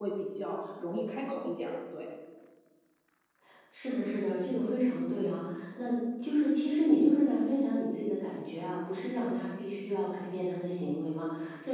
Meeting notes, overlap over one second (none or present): none